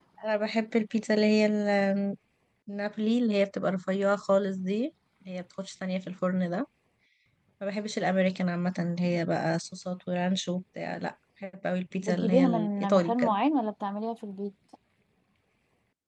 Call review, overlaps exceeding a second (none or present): present